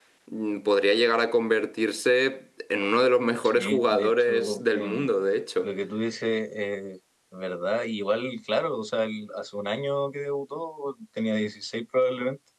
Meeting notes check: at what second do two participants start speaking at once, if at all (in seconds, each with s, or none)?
3.4 s